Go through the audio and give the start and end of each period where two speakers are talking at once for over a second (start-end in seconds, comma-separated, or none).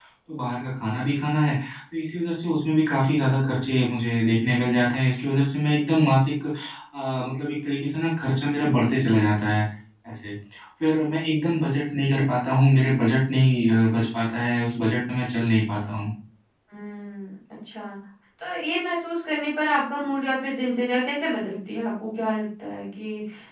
none